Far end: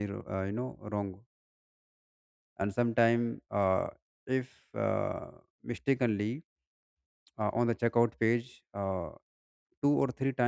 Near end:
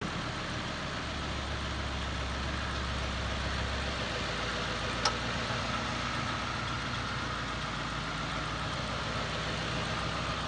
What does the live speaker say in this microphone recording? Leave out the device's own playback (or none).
none